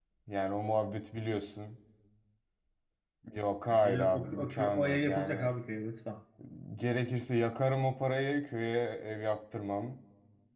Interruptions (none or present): present